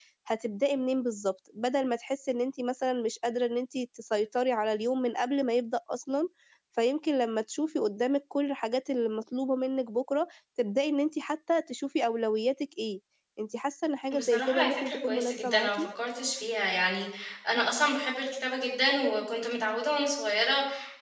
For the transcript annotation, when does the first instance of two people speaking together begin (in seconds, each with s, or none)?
14.1 s